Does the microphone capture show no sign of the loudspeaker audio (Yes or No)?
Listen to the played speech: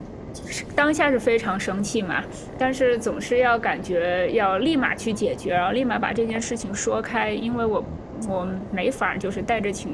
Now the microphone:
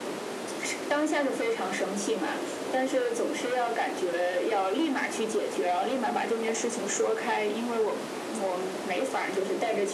No